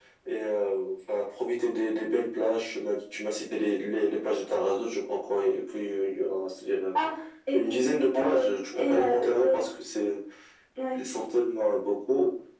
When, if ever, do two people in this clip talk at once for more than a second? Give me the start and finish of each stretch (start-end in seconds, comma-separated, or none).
8.1-9.6